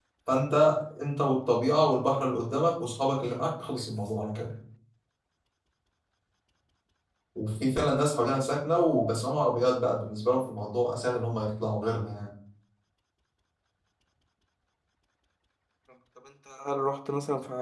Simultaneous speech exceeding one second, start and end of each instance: none

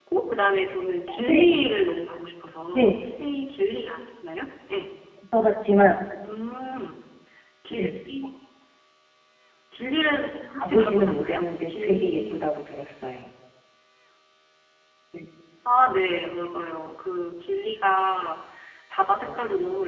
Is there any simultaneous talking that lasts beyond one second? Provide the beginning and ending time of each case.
10.6-12.4

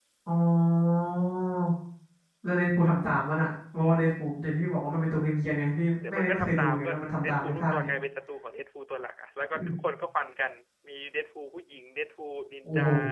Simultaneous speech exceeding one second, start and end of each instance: 6.1-7.9

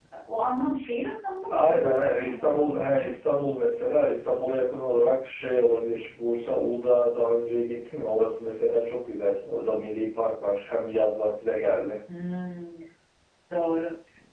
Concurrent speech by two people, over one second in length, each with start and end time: 1.5-3.1

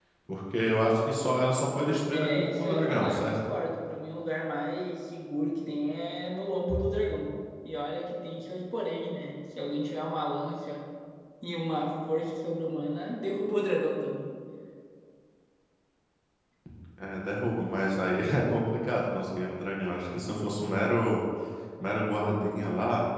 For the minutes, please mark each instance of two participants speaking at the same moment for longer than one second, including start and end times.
2.1-3.4

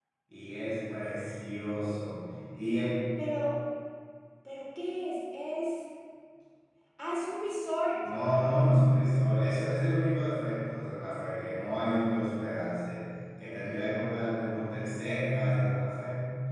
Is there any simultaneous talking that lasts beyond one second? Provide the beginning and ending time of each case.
none

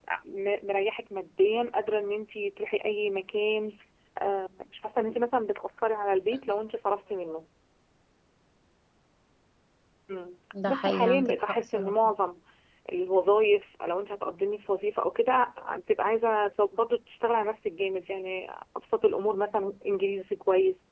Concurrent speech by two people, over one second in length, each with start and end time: 10.7-11.9

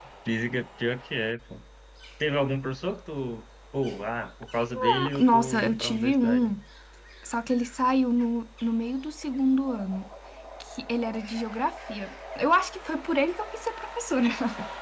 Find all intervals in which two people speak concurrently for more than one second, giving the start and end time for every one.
4.8-6.5

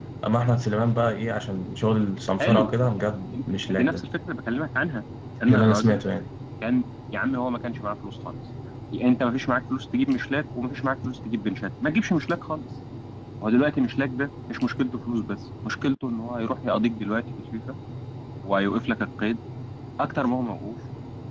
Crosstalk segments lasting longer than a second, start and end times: 2.4-4.0

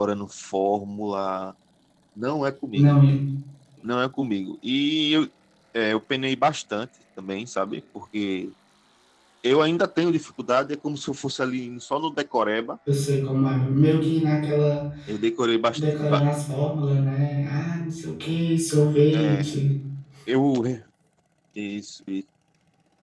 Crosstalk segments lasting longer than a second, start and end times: none

